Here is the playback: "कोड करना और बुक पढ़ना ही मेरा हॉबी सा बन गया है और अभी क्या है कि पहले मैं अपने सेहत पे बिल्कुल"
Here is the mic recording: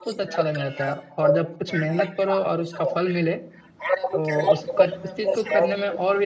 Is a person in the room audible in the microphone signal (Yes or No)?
Yes